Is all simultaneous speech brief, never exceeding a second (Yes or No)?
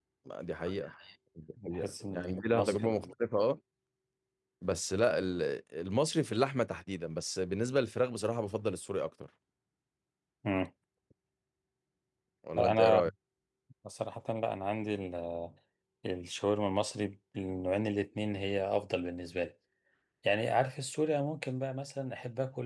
No